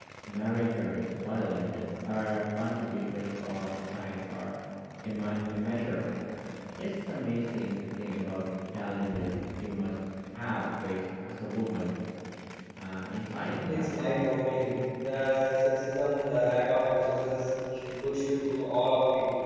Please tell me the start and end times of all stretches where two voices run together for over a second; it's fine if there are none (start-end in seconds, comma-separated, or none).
none